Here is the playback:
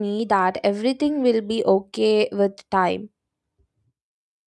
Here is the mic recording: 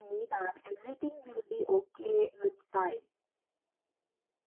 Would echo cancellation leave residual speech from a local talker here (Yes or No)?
No